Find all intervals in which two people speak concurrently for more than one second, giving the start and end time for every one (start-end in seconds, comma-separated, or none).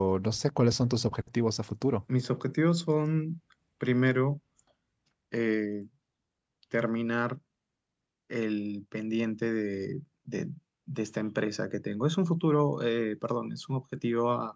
none